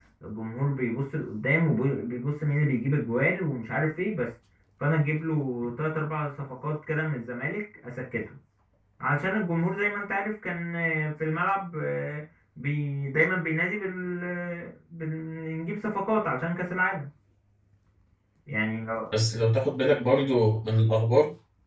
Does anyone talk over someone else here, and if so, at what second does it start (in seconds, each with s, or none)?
none